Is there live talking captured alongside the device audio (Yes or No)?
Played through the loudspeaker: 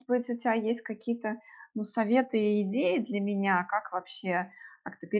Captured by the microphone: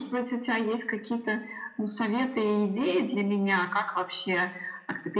No